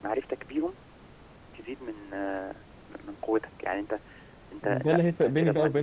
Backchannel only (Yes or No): No